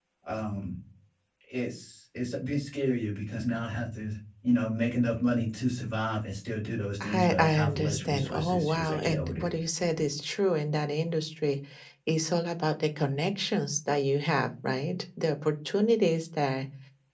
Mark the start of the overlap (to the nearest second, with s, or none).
7 s